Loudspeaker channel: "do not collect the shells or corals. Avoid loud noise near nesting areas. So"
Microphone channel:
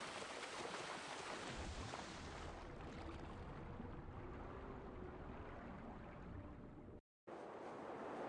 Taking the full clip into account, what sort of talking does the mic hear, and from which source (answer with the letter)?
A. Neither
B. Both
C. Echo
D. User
A